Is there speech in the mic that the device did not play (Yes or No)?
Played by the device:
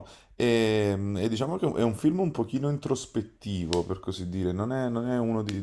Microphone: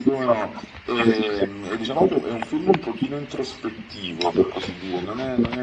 No